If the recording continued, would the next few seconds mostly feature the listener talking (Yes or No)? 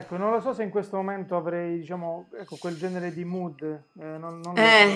Yes